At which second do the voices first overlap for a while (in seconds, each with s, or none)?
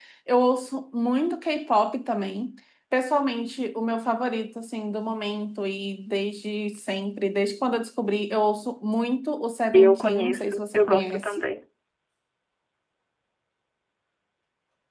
9.7 s